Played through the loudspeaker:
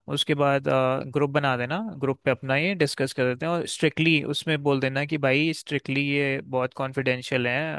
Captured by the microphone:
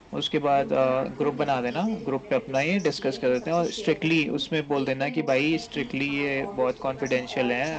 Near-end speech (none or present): present